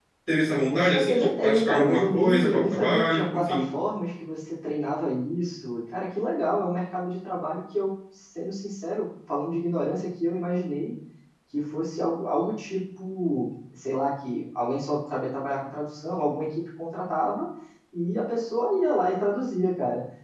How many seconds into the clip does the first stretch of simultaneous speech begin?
1 s

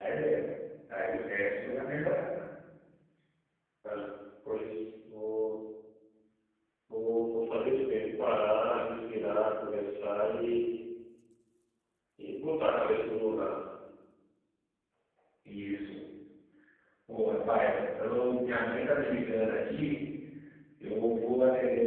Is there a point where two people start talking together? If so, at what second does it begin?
none

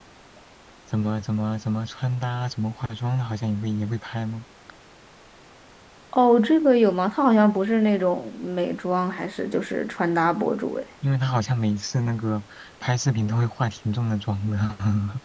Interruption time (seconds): none

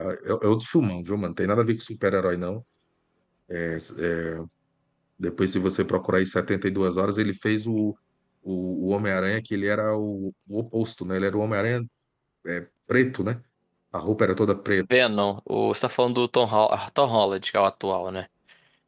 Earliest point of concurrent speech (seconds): none

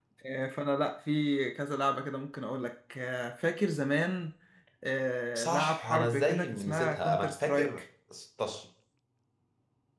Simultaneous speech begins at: 5 s

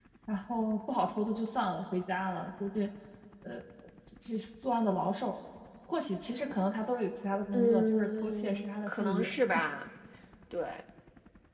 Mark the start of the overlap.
8 s

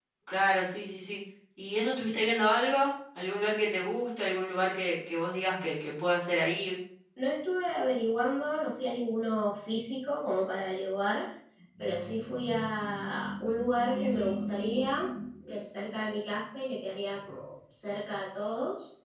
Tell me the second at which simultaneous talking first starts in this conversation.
none

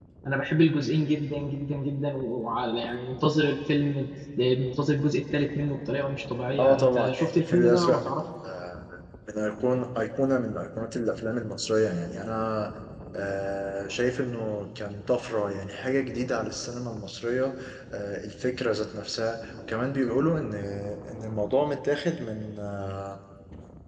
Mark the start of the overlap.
7 s

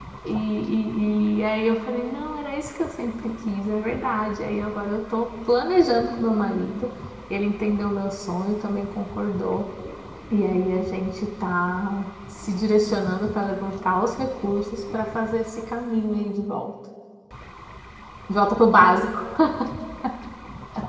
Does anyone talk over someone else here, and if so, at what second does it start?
none

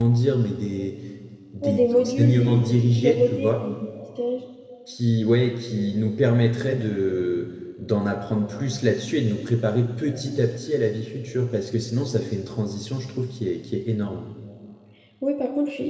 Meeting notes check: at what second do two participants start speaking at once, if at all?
2 s

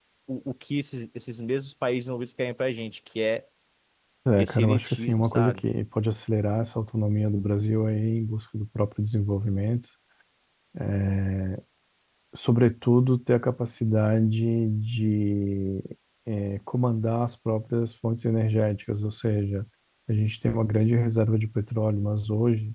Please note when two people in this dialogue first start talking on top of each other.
4 s

